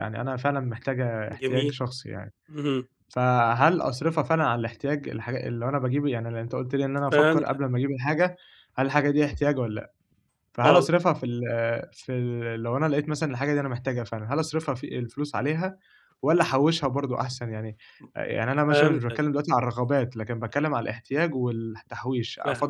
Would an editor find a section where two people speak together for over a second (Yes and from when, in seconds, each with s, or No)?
No